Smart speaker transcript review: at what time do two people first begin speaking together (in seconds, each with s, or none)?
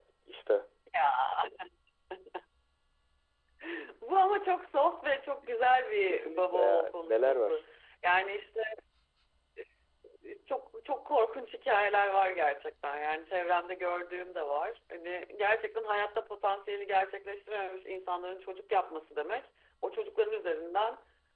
6.0 s